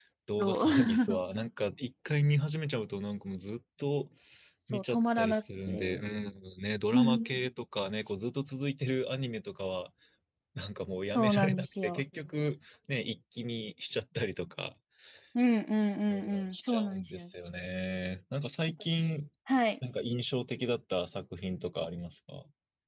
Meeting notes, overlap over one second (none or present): present